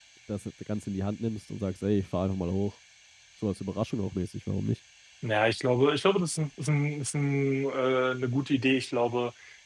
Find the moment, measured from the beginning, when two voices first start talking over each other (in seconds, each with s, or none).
none